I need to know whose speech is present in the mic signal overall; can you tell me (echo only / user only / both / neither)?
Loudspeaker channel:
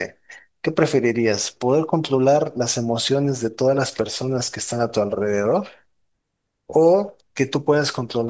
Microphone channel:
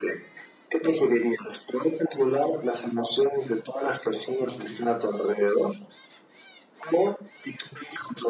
both